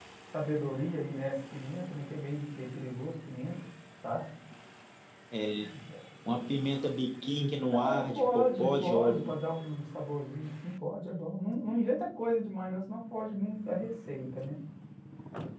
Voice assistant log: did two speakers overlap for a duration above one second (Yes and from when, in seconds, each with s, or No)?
Yes, from 7.7 s